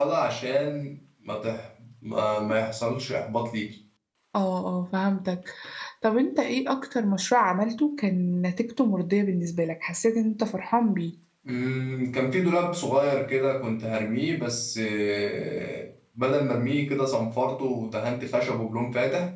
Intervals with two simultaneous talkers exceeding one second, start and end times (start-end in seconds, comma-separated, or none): none